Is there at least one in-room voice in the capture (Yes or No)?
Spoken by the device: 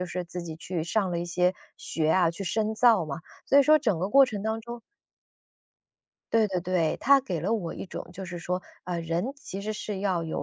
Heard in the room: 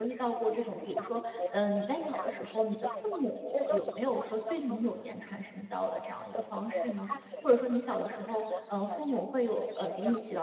Yes